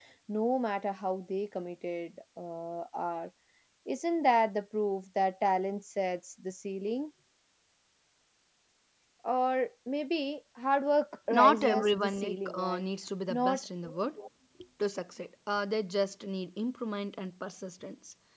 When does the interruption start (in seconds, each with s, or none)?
11.4 s